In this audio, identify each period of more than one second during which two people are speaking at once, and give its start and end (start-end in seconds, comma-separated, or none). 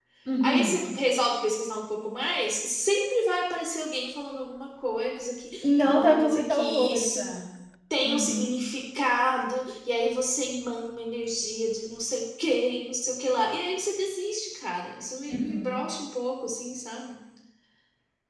5.6-7.2